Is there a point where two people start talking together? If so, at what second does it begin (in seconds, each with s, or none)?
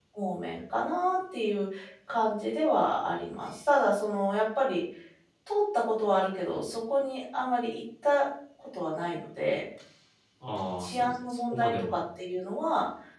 10.8 s